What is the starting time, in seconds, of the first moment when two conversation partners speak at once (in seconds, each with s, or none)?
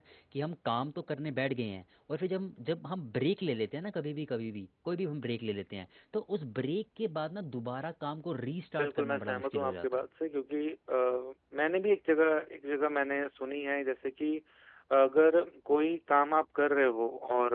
8.8 s